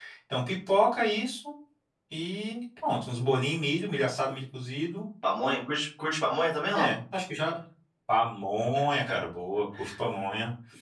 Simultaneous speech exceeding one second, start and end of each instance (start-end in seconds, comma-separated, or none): none